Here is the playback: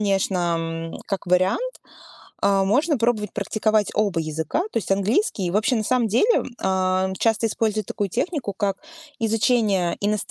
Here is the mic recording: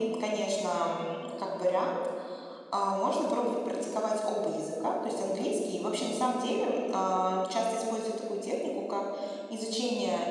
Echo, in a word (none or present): present